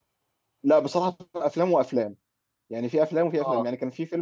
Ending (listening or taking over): listening